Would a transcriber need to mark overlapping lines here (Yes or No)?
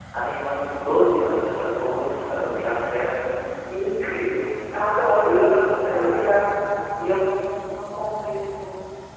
Yes